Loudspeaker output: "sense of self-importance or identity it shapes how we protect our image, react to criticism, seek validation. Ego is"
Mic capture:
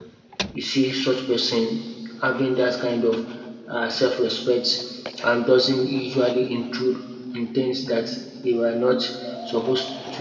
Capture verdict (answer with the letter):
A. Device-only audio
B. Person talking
B